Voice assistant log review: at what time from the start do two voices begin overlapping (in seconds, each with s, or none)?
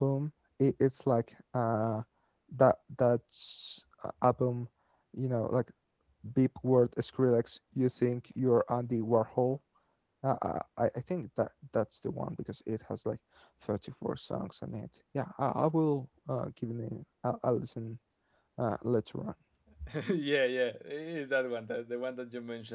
none